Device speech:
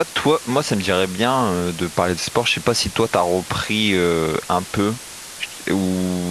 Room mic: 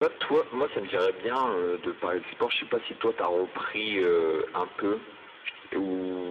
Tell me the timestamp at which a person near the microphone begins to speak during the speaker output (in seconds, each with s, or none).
none